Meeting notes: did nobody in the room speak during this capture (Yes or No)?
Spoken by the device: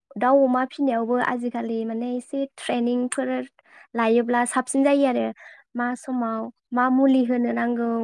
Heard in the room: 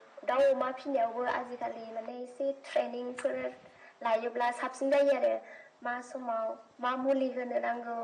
Yes